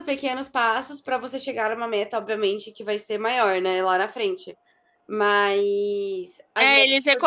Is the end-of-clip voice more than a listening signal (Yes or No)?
Yes